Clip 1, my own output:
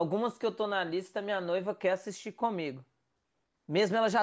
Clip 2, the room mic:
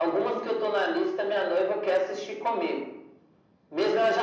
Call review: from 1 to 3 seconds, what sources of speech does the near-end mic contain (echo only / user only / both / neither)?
echo only